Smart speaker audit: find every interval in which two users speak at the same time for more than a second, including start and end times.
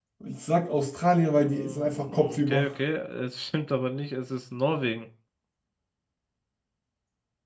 1.3-2.7

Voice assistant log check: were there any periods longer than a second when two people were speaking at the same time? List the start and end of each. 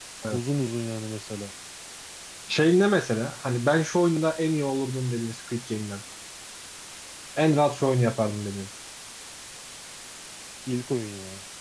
none

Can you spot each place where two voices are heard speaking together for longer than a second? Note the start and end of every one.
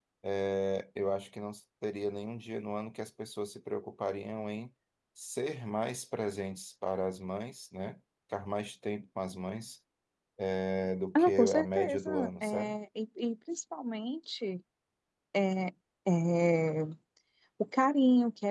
11.2-12.8

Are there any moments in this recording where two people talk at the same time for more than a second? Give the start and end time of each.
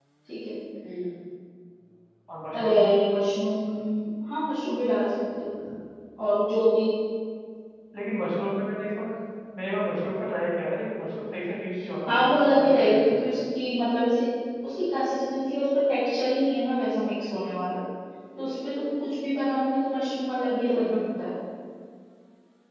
12.1-13.3

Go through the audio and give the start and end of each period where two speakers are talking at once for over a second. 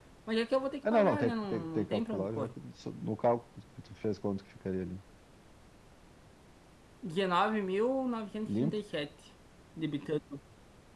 0.9-2.5

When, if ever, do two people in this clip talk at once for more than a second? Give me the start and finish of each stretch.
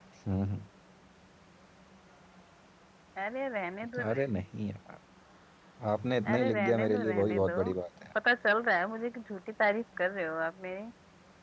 6.2-7.6

